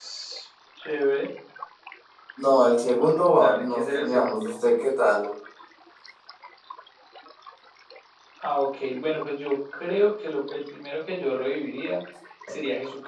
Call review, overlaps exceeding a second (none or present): present